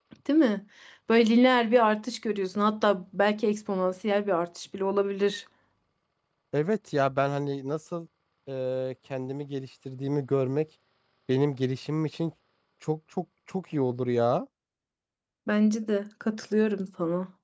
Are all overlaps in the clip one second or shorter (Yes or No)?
Yes